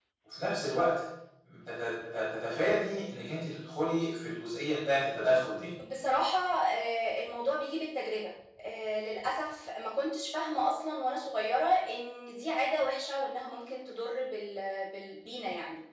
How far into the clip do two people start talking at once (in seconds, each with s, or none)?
none